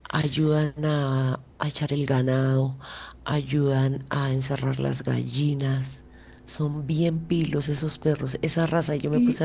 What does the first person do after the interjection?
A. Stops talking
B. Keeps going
B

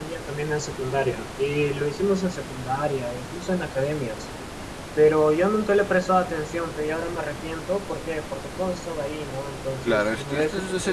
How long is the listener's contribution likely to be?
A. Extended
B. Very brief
A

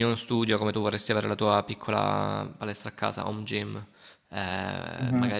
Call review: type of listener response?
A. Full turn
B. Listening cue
B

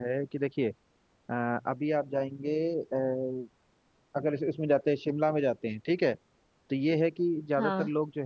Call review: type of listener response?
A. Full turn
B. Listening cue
B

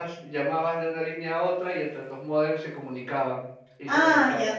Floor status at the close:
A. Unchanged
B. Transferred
B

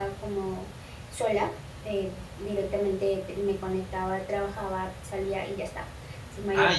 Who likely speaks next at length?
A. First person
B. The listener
B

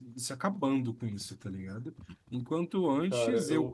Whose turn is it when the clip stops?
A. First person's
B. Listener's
A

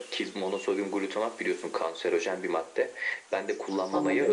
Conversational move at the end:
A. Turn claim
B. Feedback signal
B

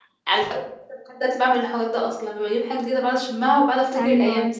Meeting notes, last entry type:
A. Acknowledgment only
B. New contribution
B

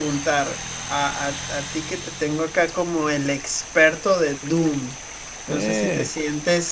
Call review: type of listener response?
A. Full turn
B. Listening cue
B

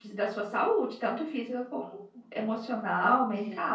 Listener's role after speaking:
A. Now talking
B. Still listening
A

